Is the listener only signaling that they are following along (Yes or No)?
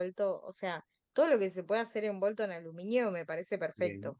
Yes